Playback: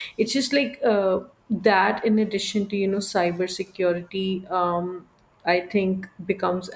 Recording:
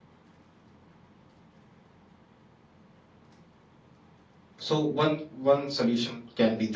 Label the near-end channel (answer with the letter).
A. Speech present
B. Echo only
A